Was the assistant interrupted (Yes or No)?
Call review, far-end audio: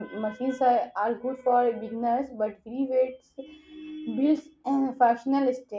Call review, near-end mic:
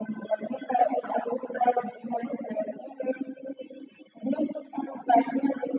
No